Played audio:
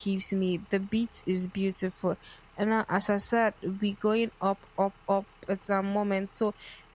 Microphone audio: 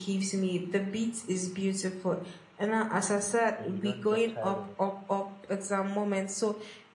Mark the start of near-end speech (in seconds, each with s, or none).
3.6 s